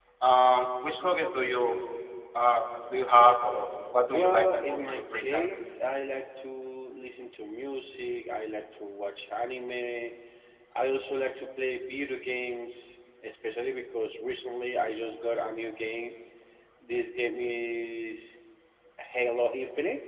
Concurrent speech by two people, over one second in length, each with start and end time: 3.9-5.5

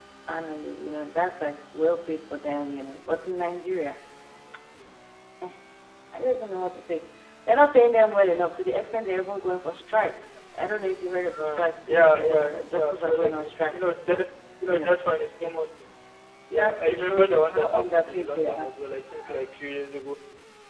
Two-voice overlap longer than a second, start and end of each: 11.4-13.8, 16.5-18.7

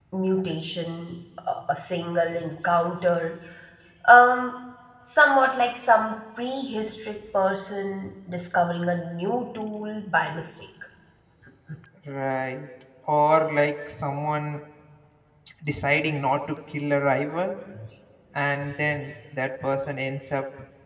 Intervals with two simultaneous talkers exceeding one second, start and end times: none

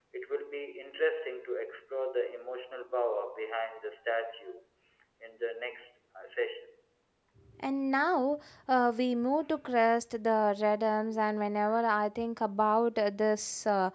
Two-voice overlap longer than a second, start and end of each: none

